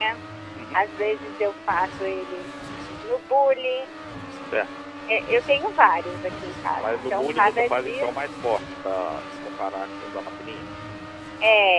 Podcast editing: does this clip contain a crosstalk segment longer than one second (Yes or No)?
Yes